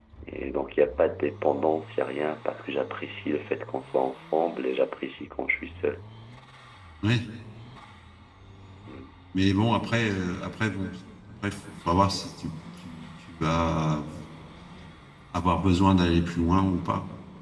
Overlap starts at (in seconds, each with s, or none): none